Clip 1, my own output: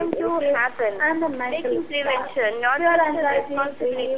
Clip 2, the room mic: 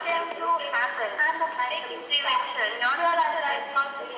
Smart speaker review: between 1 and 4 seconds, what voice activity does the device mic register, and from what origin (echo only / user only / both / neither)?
echo only